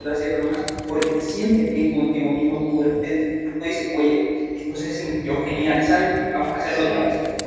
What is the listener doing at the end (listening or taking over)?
listening